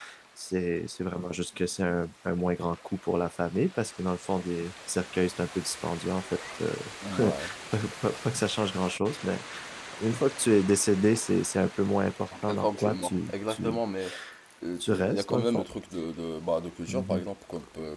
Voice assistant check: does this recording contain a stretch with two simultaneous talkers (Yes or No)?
Yes